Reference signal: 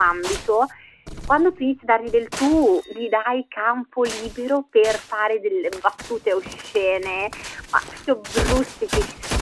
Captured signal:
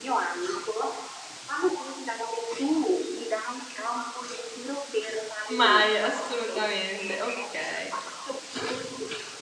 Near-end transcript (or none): Mai. Assolutamente. Okay.